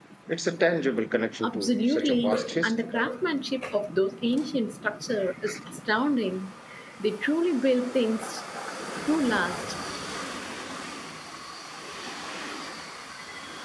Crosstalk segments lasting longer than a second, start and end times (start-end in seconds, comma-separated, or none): 1.4-2.9